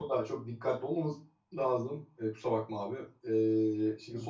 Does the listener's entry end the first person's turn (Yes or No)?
No